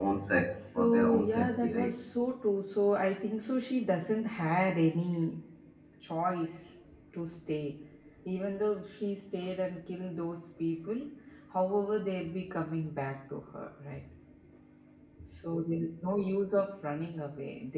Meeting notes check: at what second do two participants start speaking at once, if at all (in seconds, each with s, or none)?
0.5 s